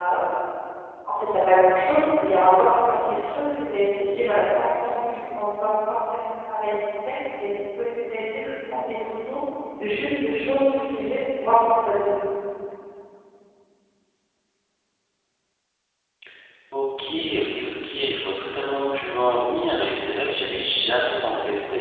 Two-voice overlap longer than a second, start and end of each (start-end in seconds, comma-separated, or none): none